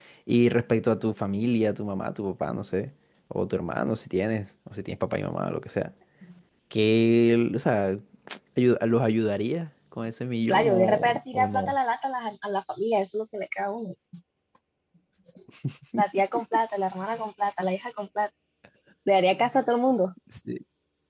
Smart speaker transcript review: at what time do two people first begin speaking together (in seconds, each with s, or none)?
10.5 s